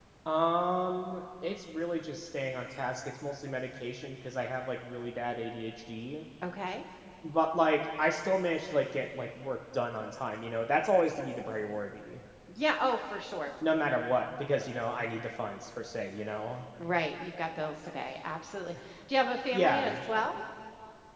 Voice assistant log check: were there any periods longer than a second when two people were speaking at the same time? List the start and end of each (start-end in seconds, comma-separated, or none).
none